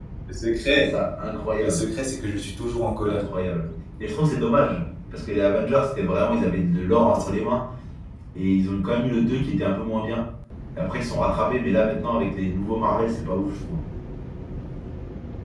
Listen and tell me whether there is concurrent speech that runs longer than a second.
No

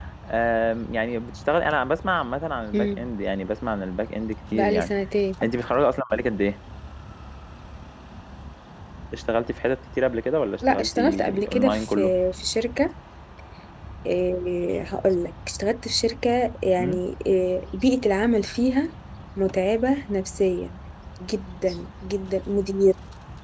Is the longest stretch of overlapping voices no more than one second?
No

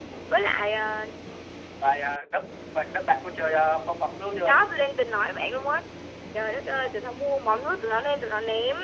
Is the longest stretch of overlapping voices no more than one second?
Yes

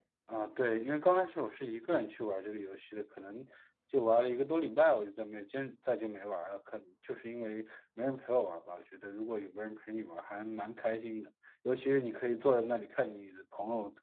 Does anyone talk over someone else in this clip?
No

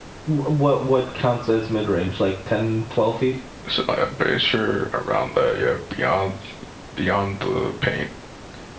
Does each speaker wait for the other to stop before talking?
Yes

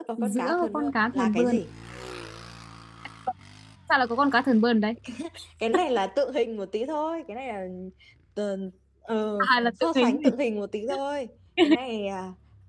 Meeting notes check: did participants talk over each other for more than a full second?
Yes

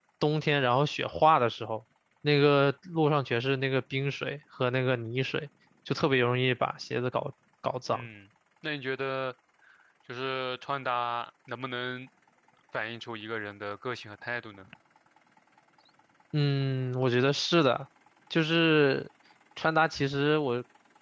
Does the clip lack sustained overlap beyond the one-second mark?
Yes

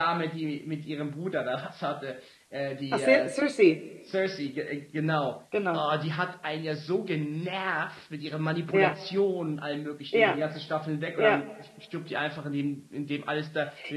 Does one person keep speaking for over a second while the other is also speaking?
No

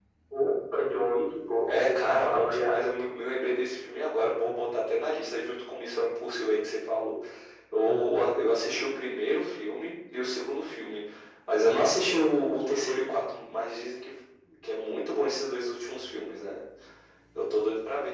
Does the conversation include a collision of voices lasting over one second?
Yes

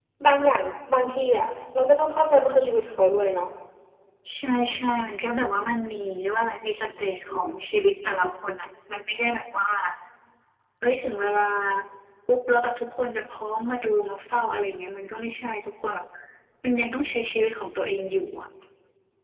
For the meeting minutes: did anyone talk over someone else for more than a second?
No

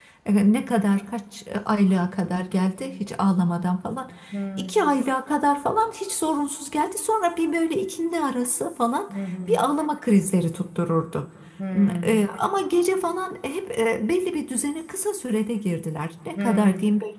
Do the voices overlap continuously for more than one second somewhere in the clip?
No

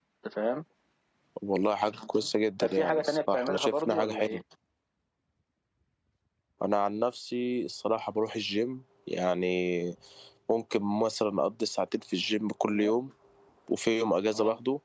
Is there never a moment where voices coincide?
No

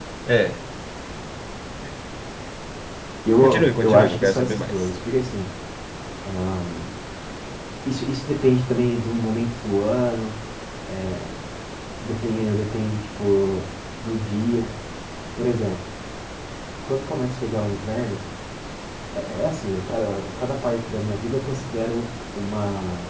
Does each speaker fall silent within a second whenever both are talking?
No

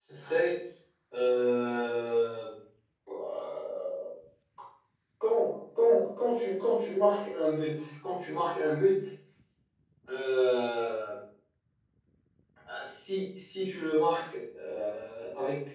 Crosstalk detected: No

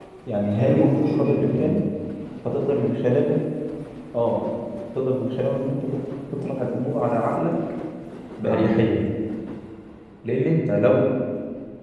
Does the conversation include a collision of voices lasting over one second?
Yes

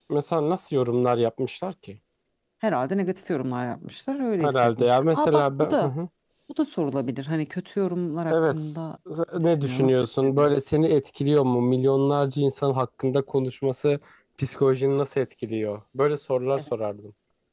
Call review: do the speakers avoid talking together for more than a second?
No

